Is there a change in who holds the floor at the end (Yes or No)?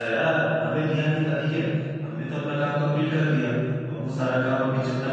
No